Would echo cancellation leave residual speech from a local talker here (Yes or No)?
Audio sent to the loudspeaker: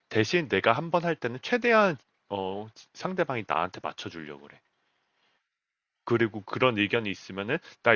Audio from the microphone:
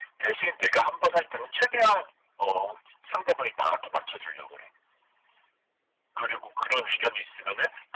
No